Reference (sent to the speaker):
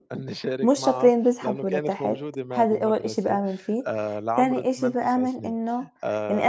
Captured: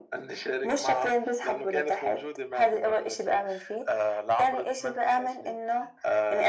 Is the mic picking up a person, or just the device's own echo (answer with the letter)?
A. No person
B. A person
A